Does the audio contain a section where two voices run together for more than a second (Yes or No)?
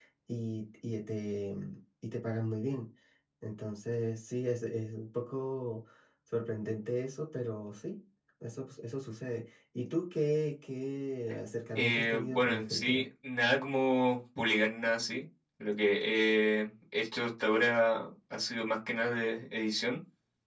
Yes